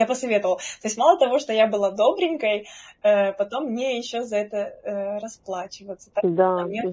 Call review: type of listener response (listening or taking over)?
taking over